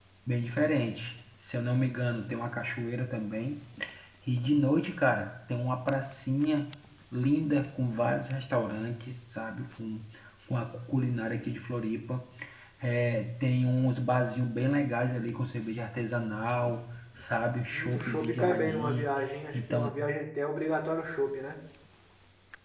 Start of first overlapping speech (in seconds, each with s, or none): 17.7 s